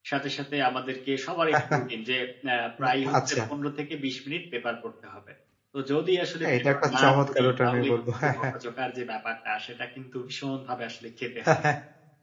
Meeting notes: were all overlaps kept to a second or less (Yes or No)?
No